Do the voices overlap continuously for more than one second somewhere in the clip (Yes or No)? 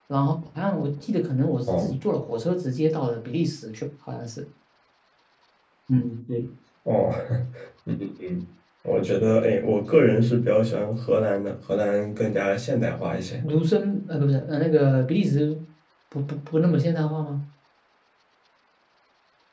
No